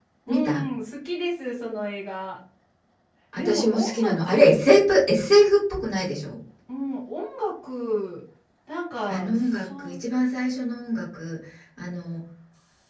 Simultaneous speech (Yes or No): Yes